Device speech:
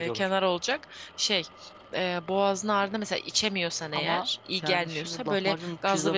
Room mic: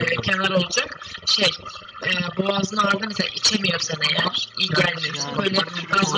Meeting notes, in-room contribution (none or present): present